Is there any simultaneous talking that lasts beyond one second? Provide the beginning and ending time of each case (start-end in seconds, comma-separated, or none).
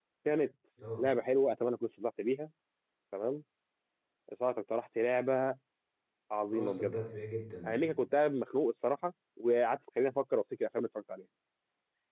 none